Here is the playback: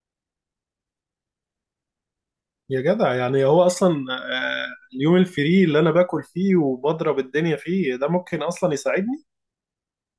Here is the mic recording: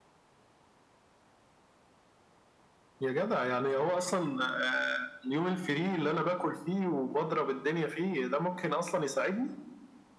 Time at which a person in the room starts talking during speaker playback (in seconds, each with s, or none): none